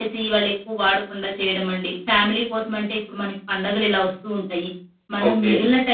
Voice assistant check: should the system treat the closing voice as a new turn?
No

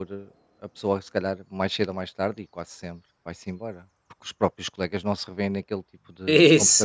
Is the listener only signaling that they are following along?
No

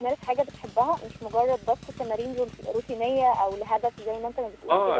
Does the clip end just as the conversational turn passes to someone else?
Yes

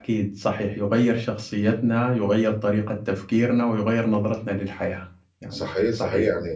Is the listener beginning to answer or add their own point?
Yes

